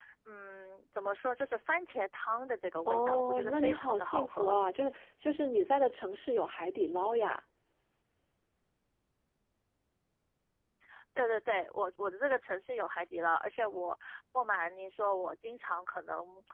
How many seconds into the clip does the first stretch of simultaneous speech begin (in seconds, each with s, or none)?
2.9 s